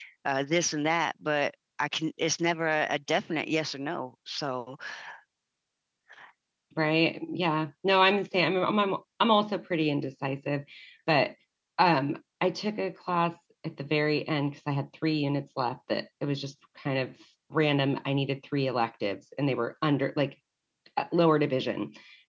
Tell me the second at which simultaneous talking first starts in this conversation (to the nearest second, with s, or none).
none